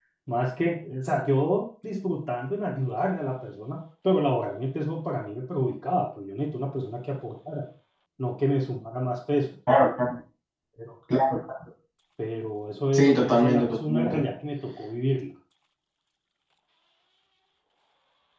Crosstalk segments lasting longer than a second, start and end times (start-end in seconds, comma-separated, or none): 12.9-14.2